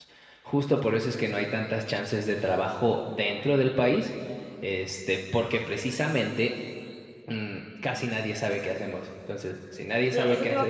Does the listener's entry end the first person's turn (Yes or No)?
Yes